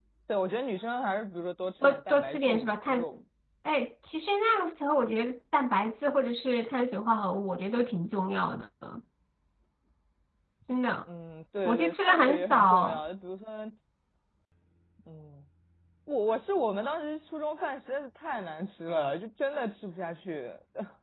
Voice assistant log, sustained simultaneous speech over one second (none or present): present